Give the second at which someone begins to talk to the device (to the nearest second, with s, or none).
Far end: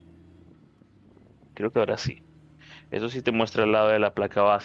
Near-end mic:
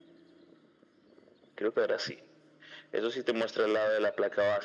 none